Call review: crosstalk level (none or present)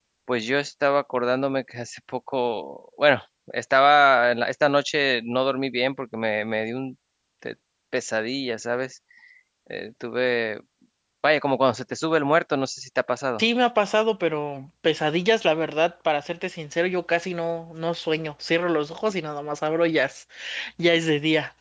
none